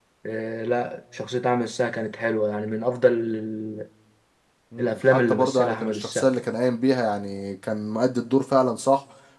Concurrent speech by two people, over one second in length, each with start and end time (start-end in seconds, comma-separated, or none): 4.8-6.3